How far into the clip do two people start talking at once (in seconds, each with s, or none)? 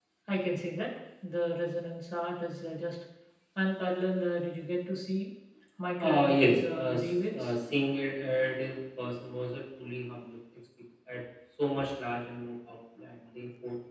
6.0 s